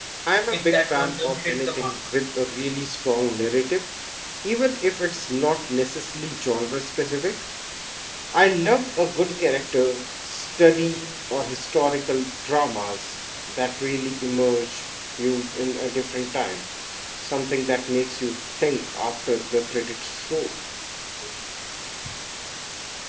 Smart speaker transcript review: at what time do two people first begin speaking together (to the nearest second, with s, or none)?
1 s